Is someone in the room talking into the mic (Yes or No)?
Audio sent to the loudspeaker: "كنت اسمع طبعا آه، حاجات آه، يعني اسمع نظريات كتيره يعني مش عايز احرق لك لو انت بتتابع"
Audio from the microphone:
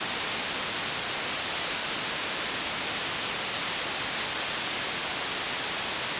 No